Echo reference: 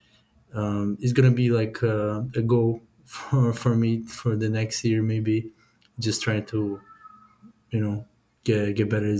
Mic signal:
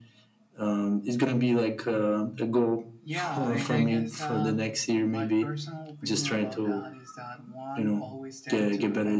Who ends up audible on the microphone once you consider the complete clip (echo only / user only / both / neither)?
both